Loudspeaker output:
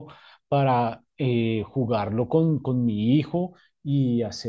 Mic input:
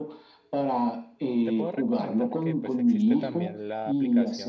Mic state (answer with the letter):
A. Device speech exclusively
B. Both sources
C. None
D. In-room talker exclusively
B